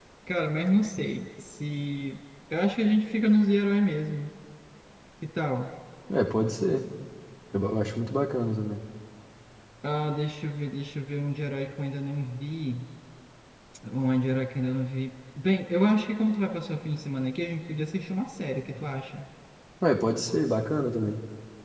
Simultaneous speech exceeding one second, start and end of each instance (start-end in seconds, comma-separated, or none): none